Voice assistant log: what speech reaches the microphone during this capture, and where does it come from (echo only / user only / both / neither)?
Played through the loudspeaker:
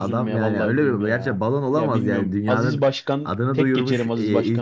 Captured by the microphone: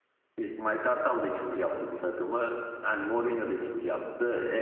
user only